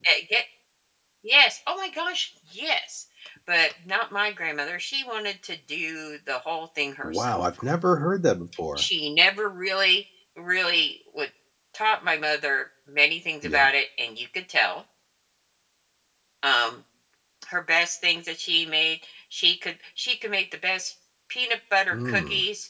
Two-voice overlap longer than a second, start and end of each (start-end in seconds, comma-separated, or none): none